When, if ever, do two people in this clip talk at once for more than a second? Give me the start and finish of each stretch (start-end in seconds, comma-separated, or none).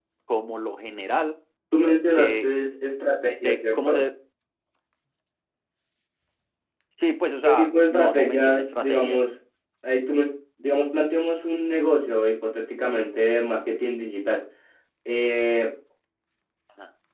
7.4-9.2